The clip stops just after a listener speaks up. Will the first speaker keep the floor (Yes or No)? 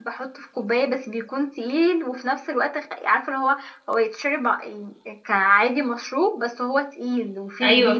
No